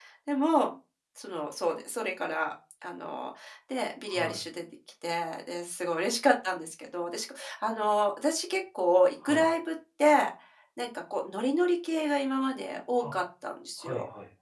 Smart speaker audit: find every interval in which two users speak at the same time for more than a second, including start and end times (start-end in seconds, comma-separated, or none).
none